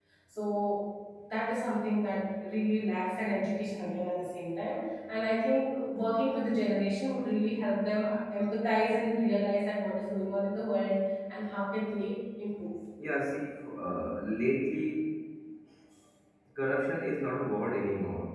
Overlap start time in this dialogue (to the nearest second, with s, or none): none